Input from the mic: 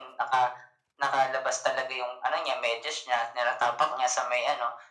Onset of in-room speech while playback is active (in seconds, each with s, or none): none